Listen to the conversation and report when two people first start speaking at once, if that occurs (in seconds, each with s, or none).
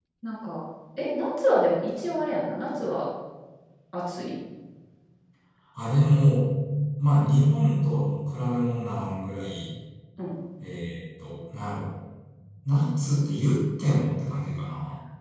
none